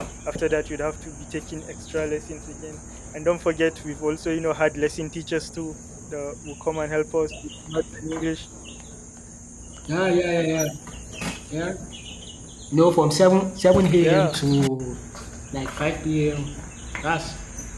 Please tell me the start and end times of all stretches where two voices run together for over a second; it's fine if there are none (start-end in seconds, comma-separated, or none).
none